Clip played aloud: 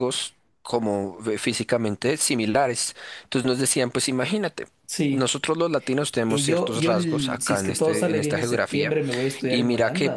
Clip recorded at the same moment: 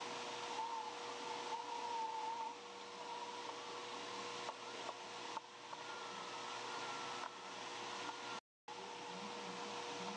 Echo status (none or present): none